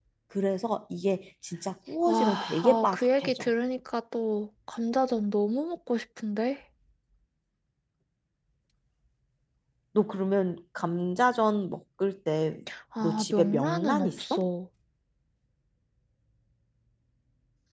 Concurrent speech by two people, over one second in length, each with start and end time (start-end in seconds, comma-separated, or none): 2.0-3.5, 13.0-14.5